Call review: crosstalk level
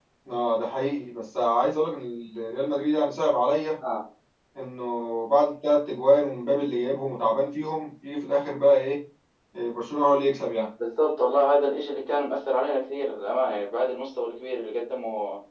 none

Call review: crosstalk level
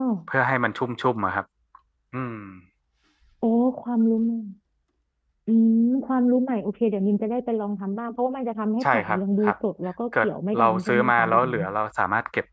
present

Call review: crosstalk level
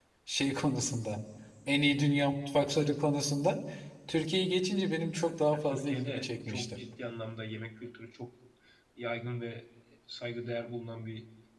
present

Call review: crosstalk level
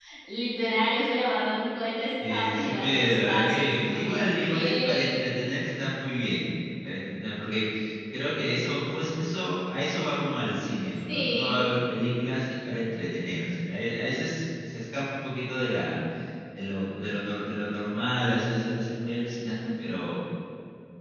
present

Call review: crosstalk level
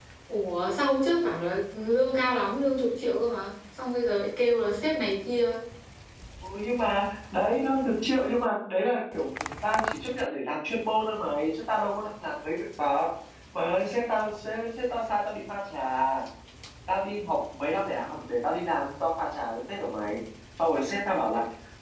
none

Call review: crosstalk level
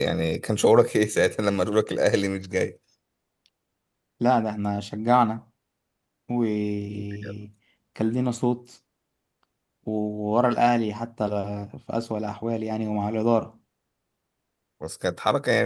none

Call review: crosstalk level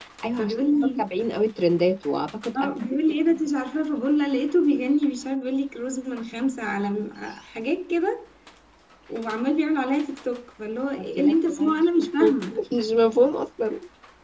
present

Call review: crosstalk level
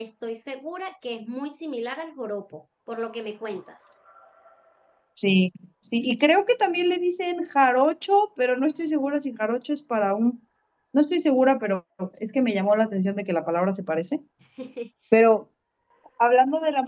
none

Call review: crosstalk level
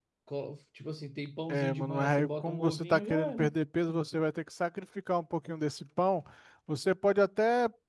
present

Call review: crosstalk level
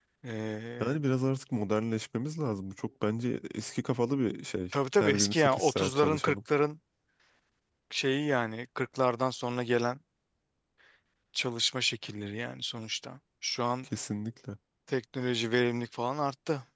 present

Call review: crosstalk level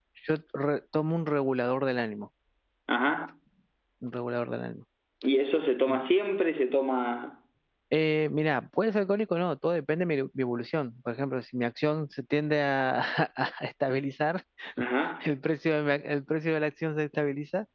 none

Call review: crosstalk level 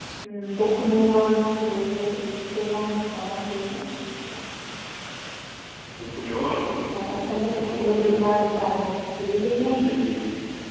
present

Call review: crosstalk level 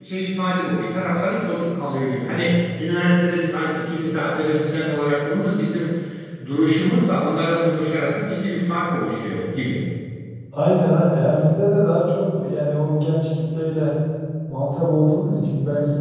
none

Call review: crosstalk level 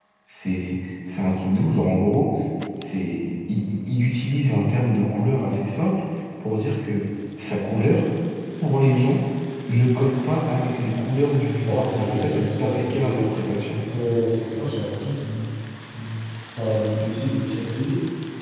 present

